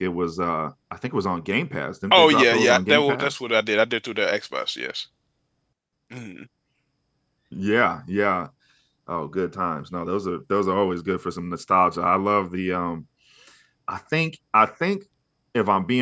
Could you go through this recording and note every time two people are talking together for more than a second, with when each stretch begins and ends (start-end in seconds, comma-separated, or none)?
2.1-3.3